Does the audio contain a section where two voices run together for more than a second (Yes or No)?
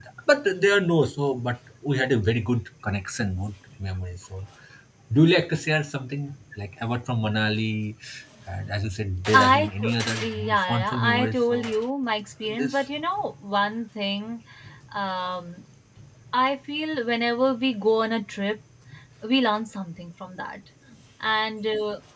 Yes